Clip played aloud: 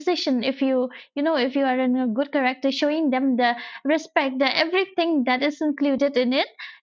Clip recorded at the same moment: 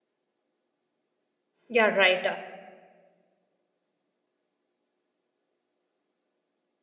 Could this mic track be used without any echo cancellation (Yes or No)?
Yes